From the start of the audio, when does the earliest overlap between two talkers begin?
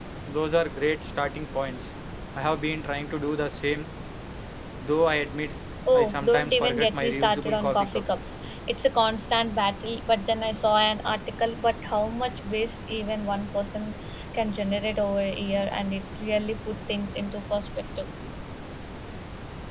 6 s

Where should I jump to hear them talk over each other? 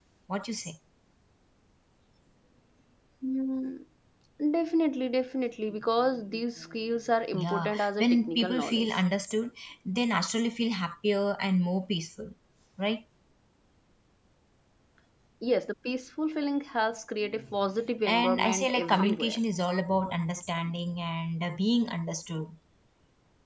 7 s

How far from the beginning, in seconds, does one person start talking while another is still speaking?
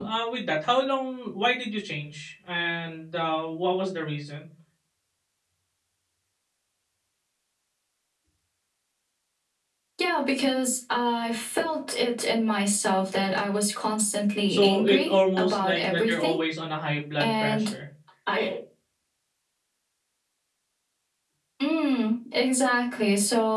14 s

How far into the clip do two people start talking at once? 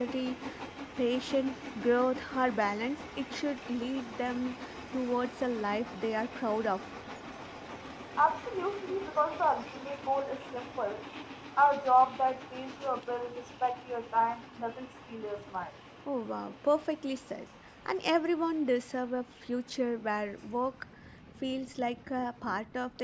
none

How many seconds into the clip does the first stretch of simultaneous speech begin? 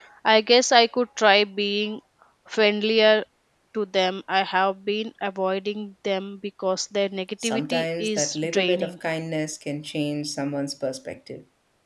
7 s

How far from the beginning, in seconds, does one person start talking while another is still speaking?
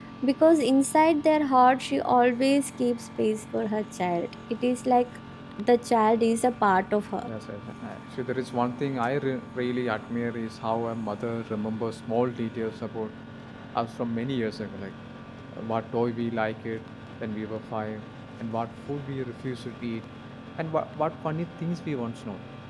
none

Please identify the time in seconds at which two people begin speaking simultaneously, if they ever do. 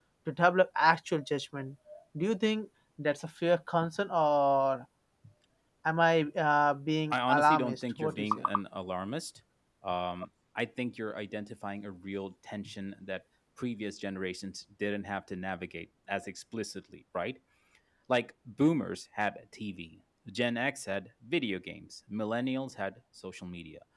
7 s

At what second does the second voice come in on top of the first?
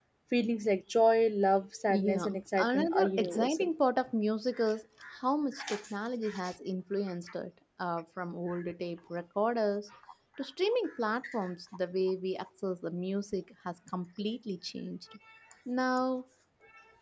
2 s

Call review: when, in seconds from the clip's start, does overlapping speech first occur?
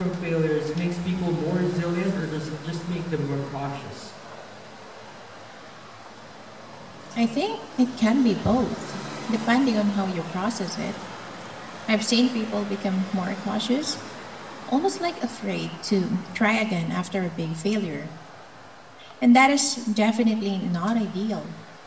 none

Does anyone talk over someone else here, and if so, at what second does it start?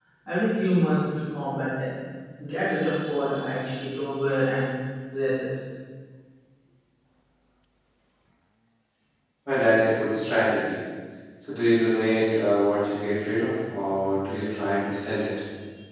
none

